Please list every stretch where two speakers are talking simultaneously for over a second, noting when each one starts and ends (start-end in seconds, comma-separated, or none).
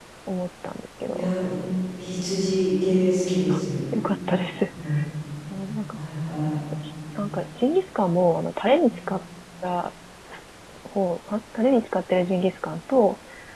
none